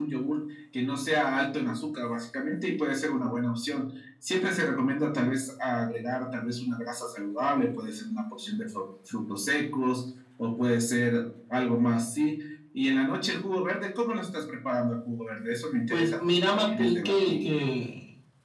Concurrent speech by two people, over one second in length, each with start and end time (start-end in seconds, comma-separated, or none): 15.9-17.5